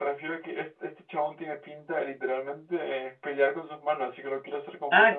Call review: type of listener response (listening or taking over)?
taking over